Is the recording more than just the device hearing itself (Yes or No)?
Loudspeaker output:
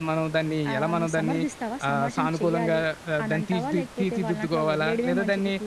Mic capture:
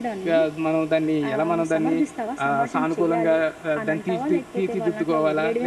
No